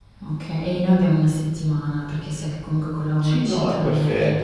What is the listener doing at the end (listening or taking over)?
taking over